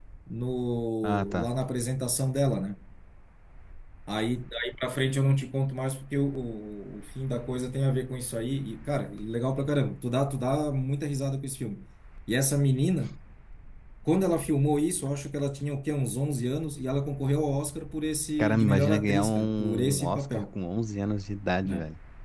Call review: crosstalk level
present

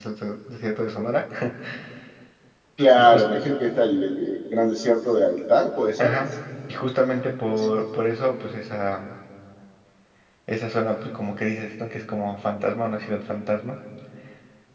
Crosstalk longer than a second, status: none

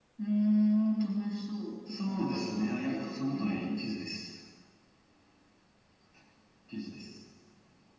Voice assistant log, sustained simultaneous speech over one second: present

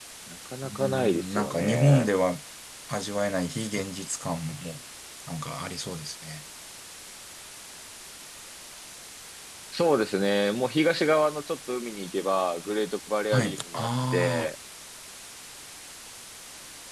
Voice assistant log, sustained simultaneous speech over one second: present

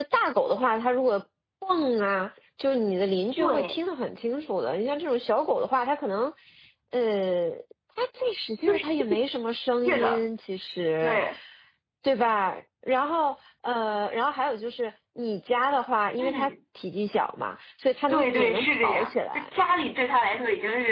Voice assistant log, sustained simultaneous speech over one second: present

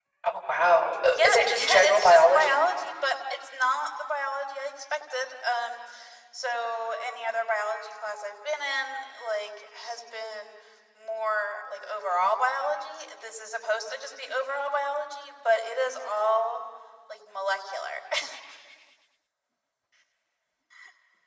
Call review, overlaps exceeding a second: present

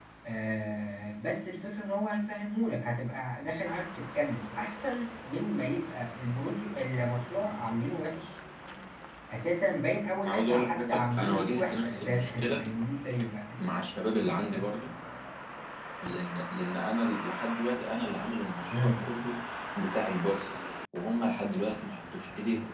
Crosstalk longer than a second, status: present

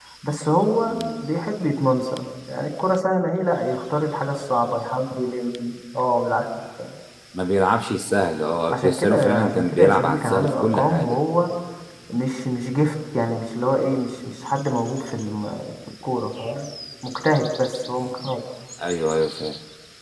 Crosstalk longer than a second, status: present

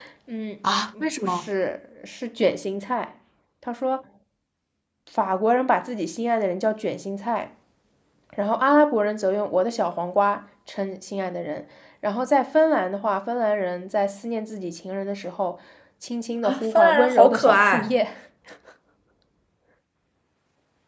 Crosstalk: present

